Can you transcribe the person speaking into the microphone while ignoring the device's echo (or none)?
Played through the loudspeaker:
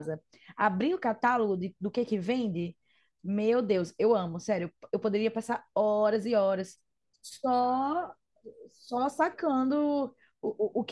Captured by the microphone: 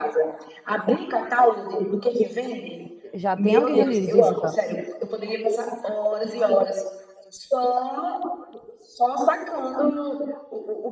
já tem alguém ali visitando.